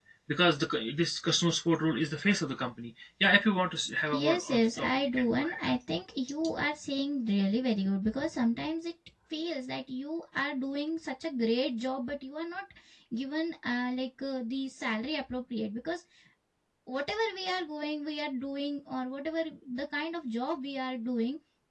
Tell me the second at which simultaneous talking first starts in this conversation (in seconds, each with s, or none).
4.1 s